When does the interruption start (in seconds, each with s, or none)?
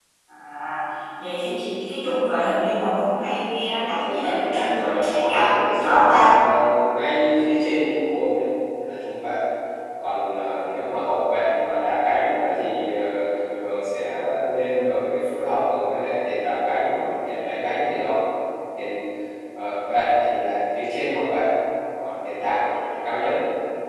3.8 s